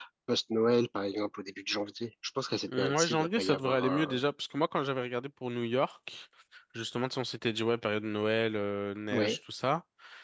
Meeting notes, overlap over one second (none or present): present